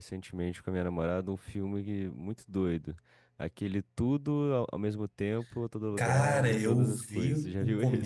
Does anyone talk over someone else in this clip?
Yes, from 5.9 s

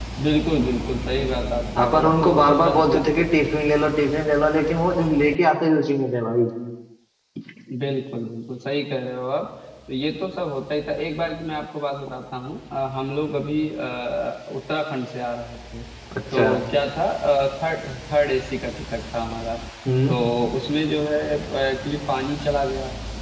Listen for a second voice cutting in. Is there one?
Yes, from 1.8 s

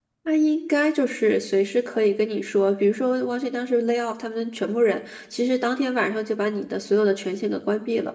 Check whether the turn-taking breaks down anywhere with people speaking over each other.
No

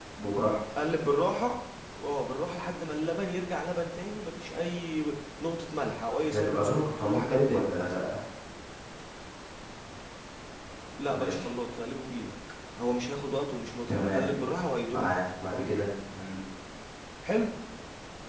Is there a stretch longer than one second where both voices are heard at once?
Yes, from 6.2 s

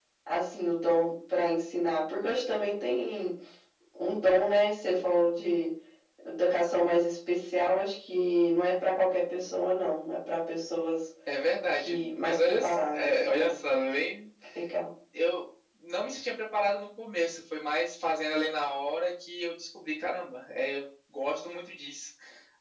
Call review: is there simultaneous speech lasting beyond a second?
Yes, from 11.7 s

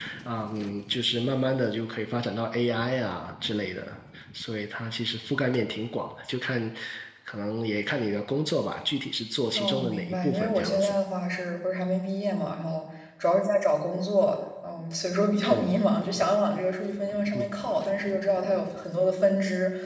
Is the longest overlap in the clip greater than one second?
Yes, from 9.6 s

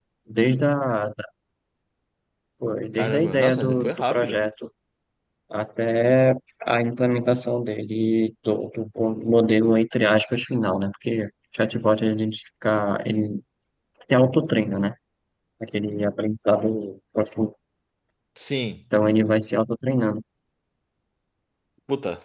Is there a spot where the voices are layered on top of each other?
Yes, from 3.0 s

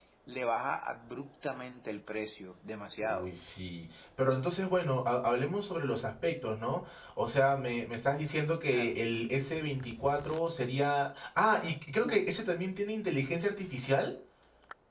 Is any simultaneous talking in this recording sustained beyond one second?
No

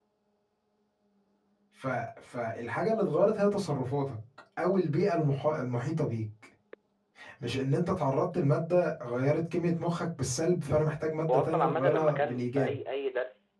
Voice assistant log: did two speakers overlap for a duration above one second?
Yes, from 11.3 s

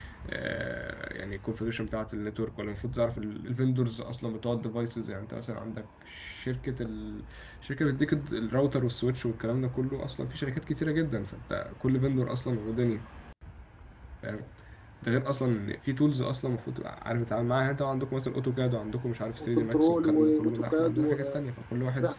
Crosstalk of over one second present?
Yes, from 19.4 s

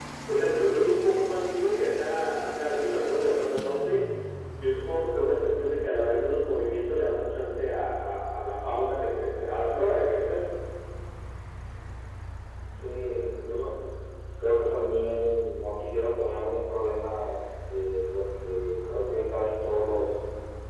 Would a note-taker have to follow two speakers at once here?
No

